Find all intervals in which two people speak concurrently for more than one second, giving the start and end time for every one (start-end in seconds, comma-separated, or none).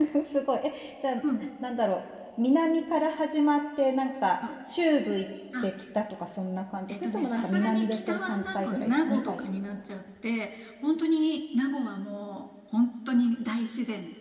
6.9-9.4